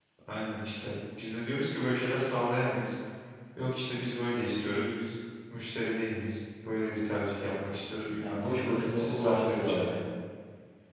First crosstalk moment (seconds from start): 8.1 s

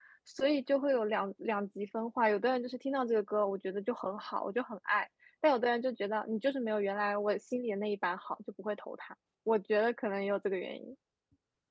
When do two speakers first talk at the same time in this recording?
none

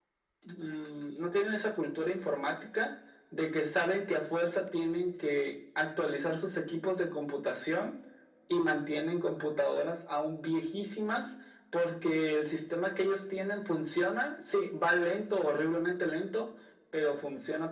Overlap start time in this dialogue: none

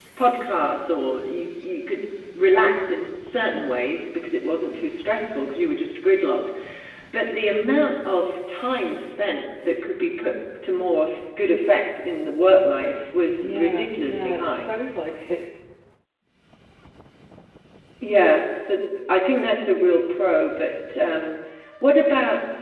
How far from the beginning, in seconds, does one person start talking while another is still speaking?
13.4 s

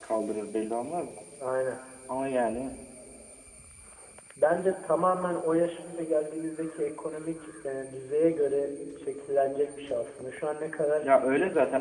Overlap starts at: none

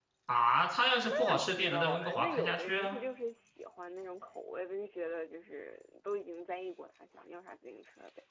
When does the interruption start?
1.2 s

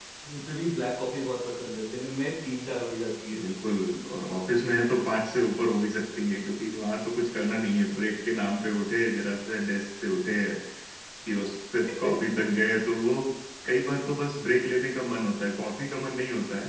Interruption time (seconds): none

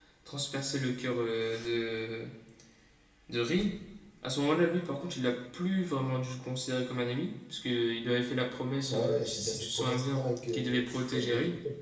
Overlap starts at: 8.8 s

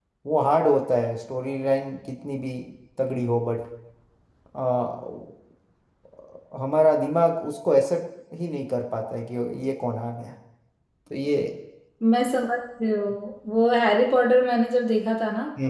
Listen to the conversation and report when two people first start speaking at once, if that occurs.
none

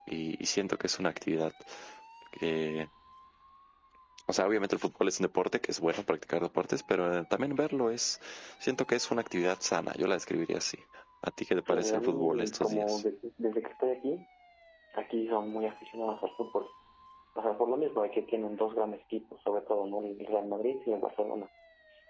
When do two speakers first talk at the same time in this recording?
11.7 s

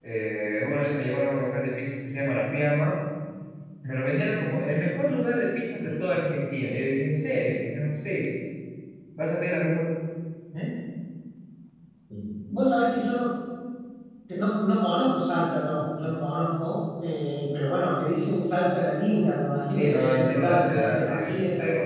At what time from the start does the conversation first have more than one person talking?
19.7 s

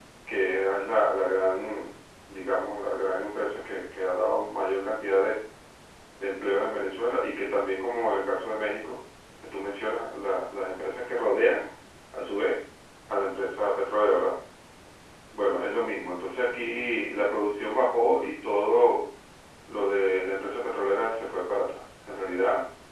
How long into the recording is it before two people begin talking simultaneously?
none

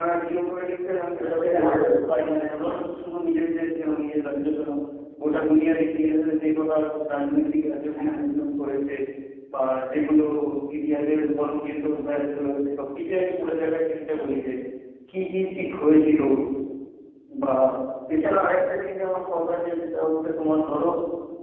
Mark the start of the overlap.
1.1 s

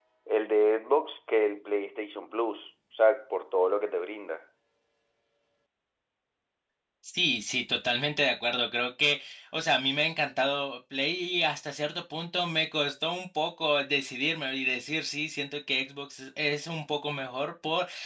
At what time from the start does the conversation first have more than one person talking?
none

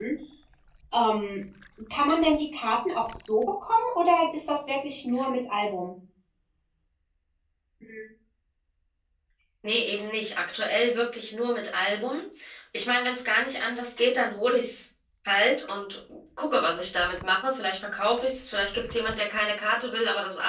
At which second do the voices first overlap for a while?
none

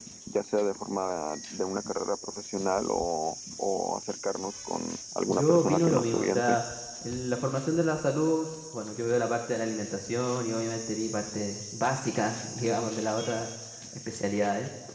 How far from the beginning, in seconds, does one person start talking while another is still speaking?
5.3 s

